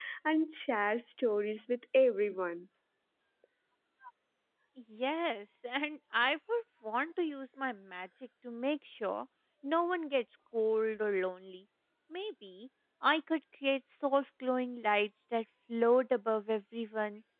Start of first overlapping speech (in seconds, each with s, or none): none